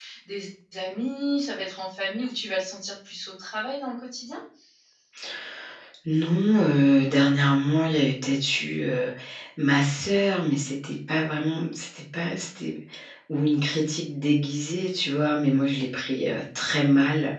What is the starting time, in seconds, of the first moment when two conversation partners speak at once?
none

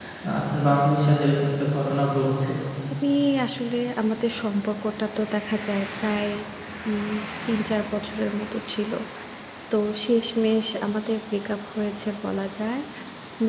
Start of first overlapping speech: none

